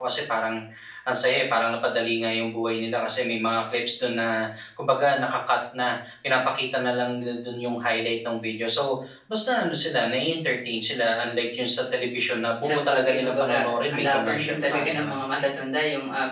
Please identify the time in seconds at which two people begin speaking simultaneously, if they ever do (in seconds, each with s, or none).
12.6 s